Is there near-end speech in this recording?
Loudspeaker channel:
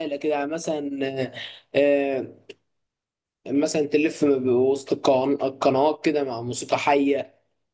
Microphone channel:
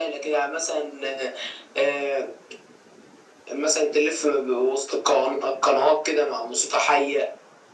No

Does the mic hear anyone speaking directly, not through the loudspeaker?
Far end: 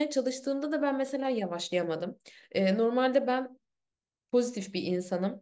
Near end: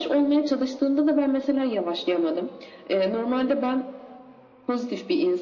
No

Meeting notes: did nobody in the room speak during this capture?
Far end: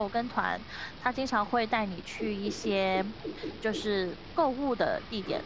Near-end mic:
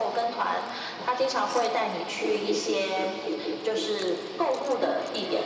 Yes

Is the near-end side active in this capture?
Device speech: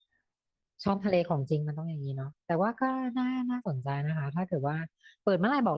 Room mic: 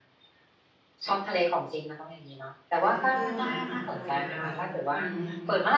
Yes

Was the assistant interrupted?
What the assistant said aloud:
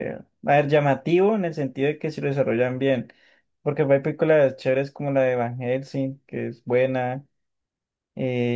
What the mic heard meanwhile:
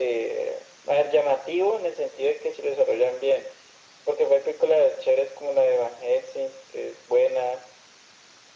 No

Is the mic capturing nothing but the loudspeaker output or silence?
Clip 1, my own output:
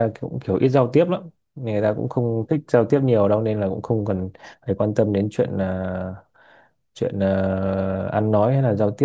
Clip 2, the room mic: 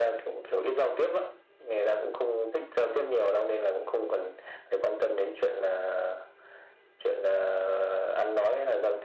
Yes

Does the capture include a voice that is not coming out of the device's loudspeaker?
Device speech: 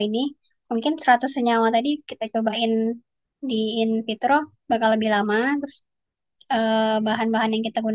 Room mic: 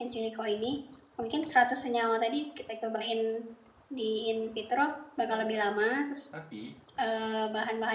Yes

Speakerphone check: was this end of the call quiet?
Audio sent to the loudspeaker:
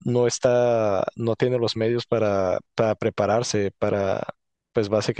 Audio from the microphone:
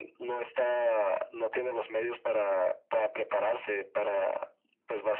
Yes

